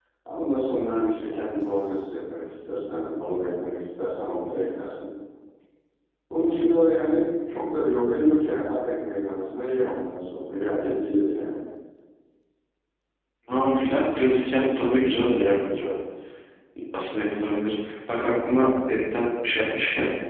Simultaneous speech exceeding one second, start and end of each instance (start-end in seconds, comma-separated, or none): none